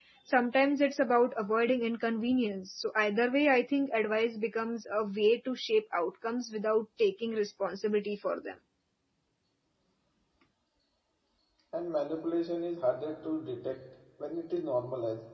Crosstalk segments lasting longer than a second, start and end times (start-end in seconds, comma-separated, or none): none